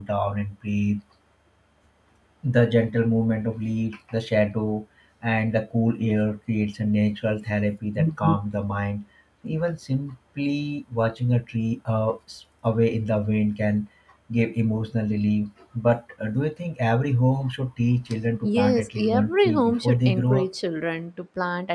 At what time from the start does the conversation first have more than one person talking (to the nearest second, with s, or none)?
18 s